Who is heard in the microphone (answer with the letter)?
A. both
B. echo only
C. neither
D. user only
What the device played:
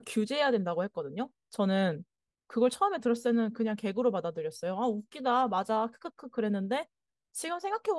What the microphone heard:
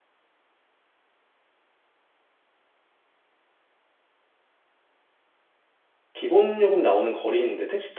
D